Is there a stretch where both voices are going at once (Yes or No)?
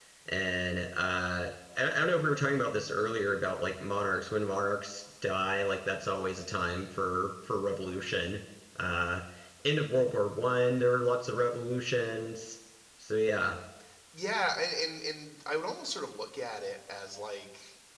No